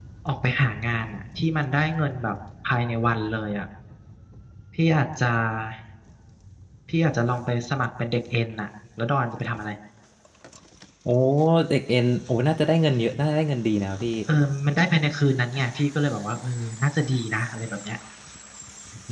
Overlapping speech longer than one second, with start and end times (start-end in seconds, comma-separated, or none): none